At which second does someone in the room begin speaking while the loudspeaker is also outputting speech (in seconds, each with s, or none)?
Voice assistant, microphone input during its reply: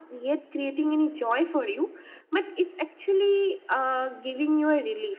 none